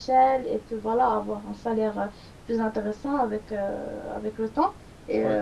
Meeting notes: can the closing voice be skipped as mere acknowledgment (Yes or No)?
Yes